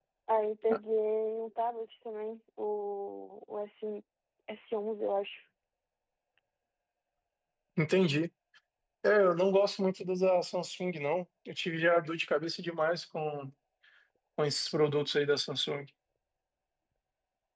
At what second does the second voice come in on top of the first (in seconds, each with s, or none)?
none